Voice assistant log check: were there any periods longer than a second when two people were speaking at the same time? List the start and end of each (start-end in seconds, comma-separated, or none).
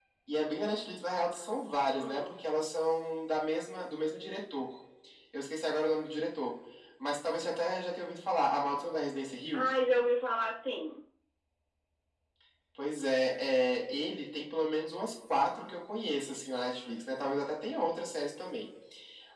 none